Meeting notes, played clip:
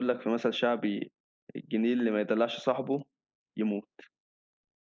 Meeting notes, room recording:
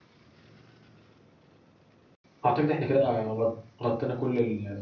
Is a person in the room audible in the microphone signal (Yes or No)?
Yes